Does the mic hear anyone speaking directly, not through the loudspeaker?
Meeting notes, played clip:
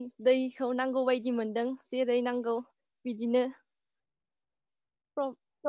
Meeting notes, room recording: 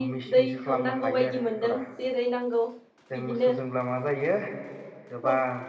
Yes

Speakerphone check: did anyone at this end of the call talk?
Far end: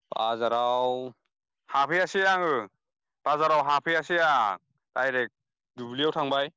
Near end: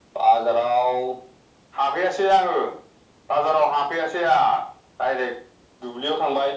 No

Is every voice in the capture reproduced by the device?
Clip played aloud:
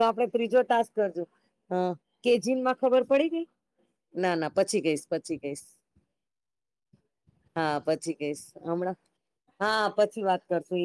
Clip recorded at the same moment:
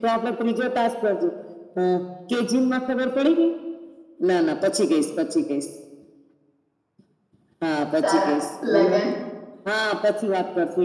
No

